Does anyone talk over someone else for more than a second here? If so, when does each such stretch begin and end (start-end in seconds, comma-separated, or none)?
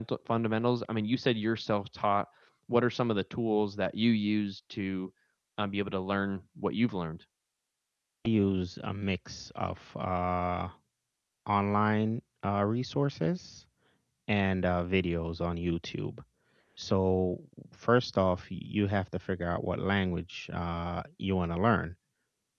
none